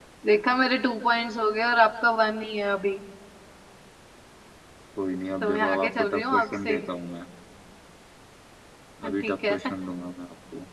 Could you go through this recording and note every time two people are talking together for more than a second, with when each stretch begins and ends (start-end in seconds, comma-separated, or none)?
5.4-6.8